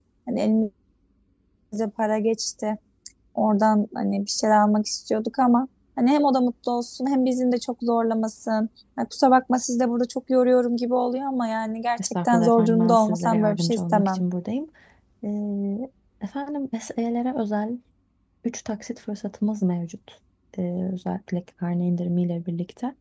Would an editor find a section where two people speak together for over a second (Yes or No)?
Yes